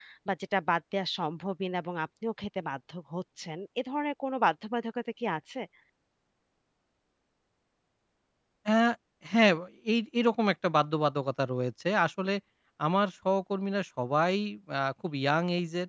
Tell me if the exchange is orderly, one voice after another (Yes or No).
Yes